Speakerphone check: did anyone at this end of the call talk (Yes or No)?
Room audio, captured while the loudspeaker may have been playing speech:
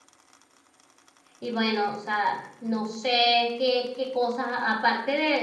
Yes